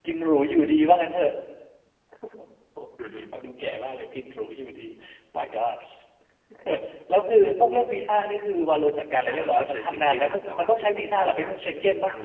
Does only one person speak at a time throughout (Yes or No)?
No